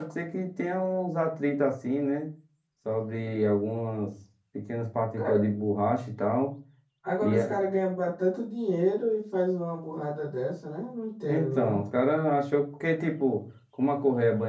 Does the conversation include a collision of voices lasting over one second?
No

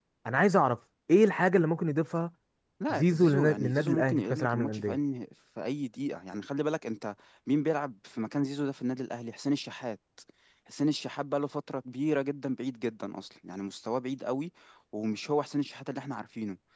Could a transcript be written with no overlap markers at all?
No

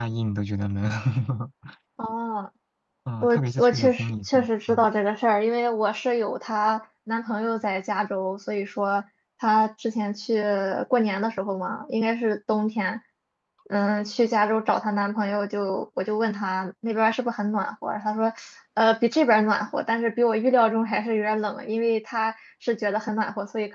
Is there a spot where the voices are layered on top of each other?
Yes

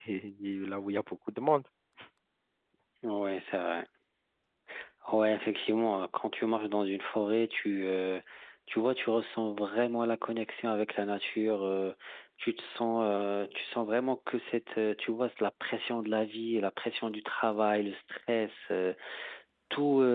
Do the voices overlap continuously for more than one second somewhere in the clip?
No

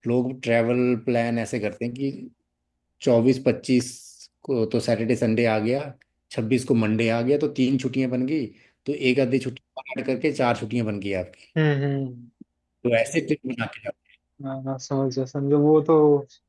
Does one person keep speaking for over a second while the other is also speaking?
No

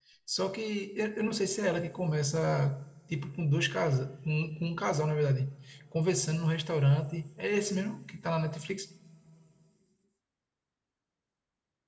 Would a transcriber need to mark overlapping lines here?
No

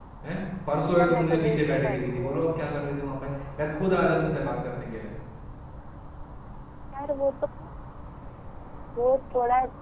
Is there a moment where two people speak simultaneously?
Yes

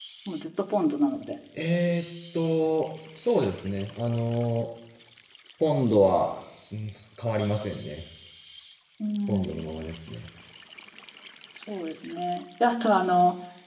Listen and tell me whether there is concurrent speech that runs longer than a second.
No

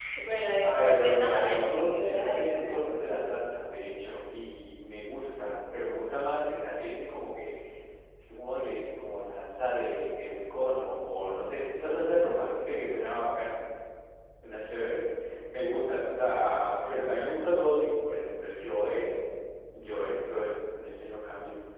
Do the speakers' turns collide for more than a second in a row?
Yes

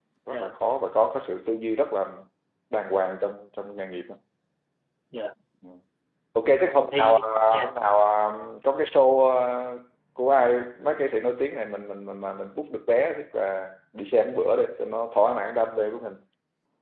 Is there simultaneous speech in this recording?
Yes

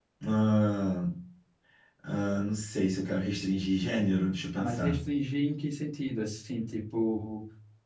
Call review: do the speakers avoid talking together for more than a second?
Yes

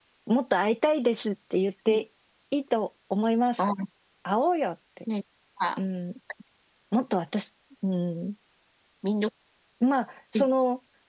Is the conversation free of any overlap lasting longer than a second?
Yes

